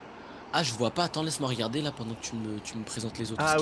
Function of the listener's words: taking over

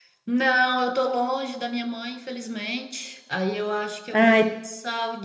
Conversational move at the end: listening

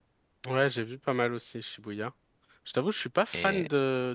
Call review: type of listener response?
listening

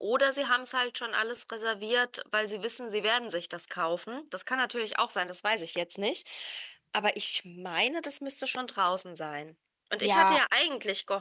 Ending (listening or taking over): listening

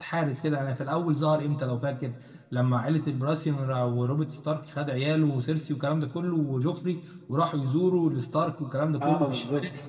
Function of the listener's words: listening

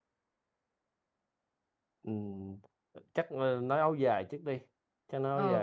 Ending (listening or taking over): taking over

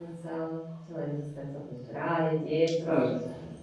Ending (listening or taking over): taking over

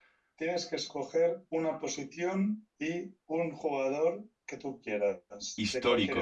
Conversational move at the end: taking over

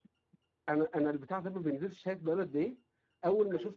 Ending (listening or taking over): listening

